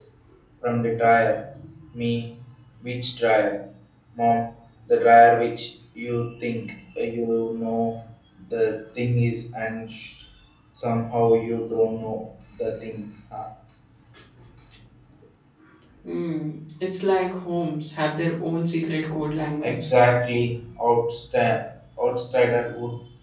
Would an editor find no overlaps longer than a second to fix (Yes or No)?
Yes